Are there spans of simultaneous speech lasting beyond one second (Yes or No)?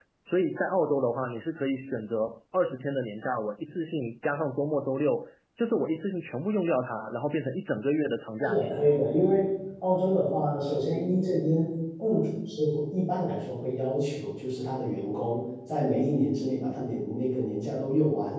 No